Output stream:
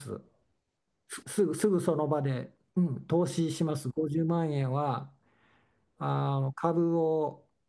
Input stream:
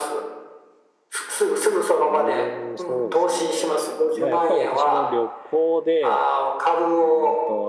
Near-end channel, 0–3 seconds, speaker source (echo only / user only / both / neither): both